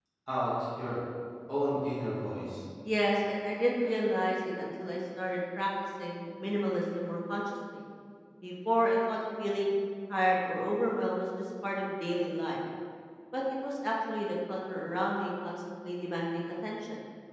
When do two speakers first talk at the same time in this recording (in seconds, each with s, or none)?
none